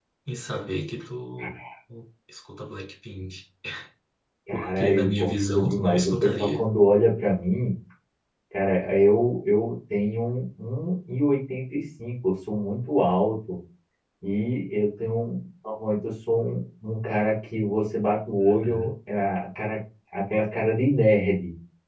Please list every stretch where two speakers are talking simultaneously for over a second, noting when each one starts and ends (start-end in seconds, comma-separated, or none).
4.5-6.6